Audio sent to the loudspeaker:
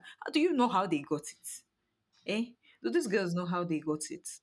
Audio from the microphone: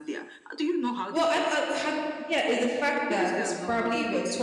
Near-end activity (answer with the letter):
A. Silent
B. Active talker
B